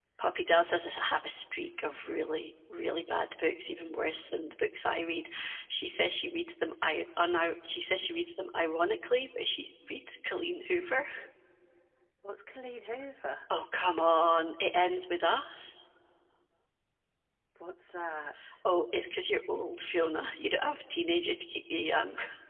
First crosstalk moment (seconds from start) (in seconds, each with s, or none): none